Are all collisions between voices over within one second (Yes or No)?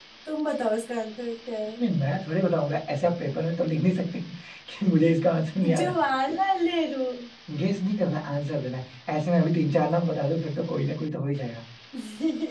Yes